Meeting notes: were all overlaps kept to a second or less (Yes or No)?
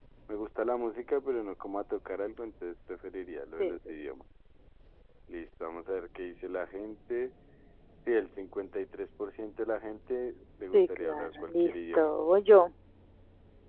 No